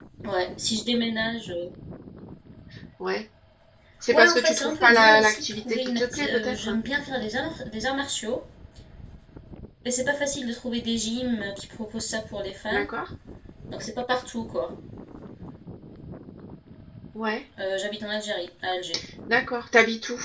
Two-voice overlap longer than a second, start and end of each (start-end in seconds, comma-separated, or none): 4.1-6.7